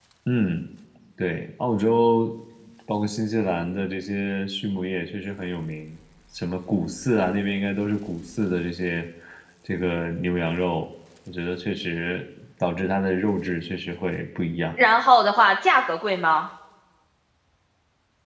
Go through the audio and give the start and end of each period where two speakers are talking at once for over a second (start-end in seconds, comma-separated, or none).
none